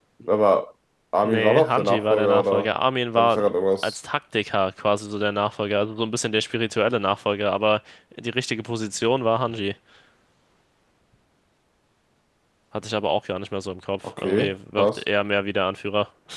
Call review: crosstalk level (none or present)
present